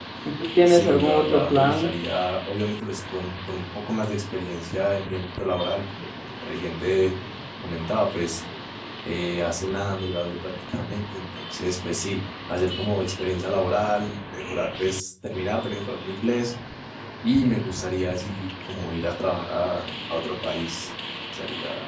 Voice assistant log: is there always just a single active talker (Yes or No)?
No